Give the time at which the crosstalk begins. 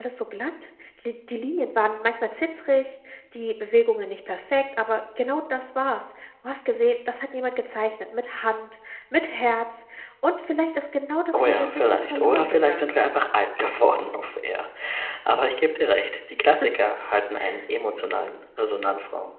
11.3 s

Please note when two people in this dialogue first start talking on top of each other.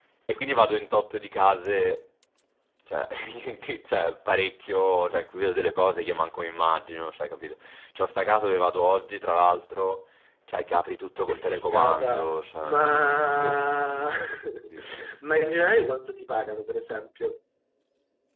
11.3 s

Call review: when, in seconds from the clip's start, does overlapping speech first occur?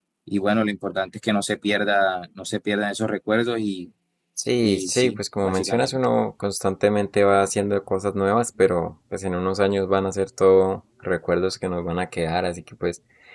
4.6 s

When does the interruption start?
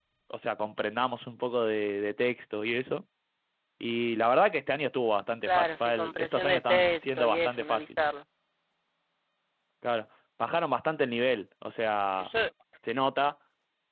5.5 s

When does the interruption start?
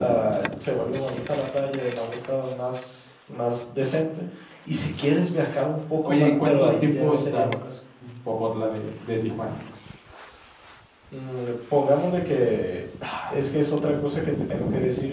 6.0 s

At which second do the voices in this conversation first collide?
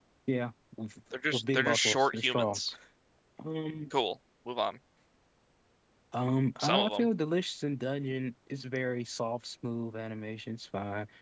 1.3 s

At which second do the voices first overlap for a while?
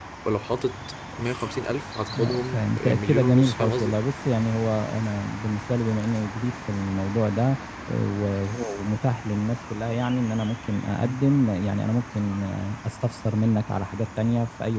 2.1 s

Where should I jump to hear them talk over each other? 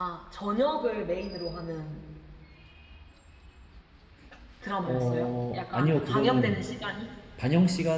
4.9 s

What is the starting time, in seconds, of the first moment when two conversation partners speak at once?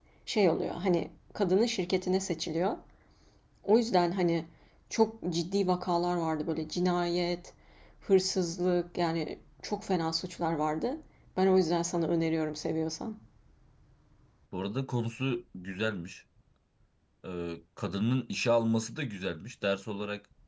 none

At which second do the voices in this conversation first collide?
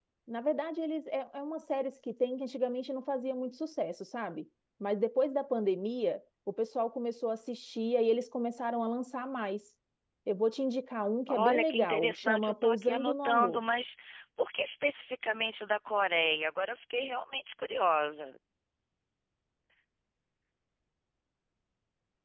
11.3 s

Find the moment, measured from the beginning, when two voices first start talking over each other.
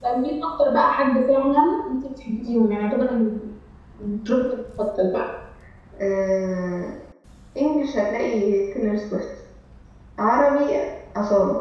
none

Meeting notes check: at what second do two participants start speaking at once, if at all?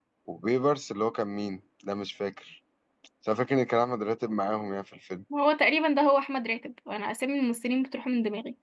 none

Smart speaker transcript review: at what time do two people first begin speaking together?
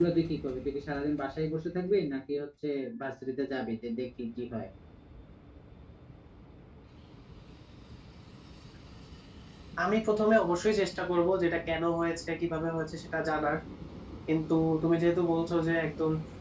none

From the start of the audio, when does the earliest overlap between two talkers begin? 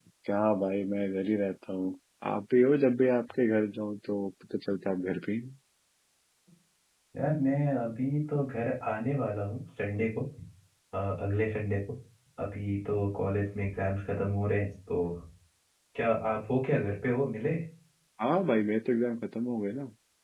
none

